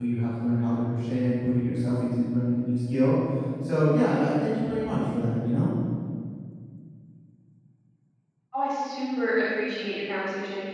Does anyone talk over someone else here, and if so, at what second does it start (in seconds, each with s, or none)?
none